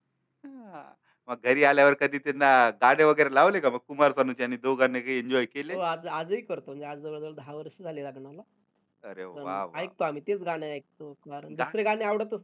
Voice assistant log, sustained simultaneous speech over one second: none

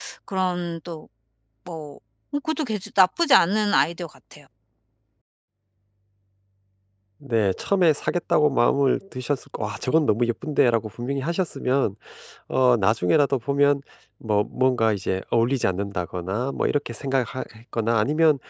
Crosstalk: none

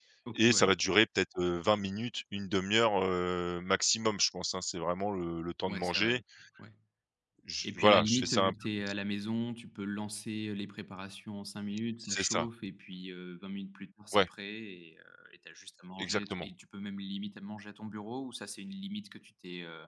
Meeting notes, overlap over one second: present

